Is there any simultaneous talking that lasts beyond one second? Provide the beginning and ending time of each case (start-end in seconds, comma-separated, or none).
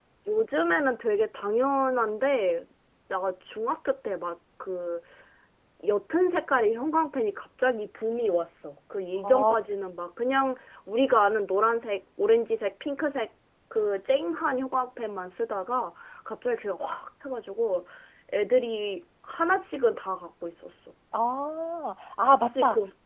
none